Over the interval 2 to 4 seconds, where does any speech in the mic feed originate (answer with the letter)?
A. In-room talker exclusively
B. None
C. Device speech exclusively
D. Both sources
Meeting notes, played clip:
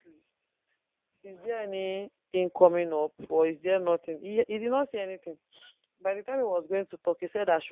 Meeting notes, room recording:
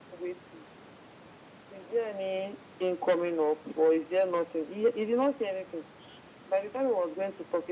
C